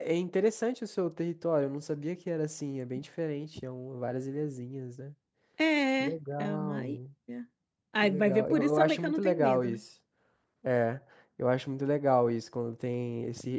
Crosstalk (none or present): present